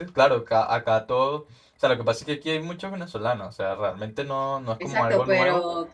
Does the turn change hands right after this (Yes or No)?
Yes